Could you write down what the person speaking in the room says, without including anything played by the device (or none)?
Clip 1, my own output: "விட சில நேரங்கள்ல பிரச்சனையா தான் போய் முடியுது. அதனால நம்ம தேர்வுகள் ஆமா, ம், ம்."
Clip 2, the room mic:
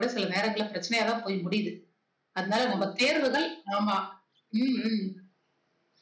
none